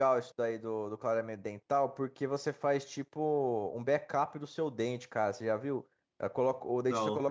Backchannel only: Yes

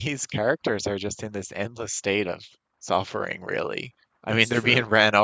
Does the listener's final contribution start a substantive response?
No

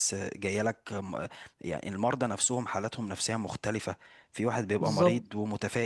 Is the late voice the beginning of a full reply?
No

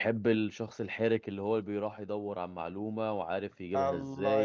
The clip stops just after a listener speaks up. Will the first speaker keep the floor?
No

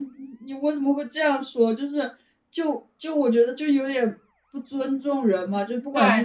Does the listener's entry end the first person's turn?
No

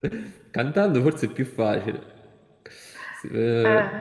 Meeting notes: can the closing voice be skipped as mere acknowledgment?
Yes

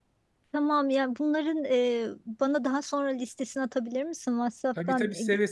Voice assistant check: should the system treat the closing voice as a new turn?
Yes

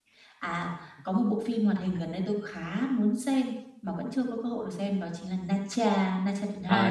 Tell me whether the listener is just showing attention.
No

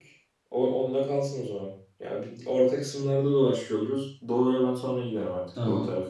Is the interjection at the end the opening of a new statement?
Yes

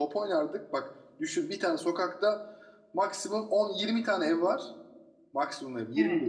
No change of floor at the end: Yes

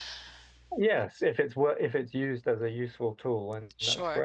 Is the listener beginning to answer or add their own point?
Yes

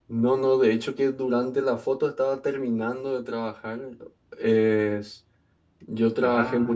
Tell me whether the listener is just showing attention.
Yes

